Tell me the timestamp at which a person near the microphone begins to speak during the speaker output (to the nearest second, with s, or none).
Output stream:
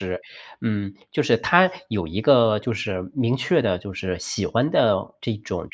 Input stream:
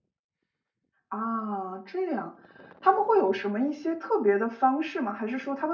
1 s